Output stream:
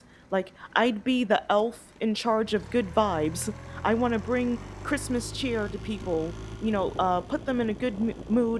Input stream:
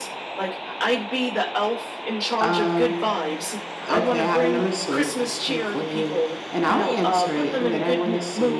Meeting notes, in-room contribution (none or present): present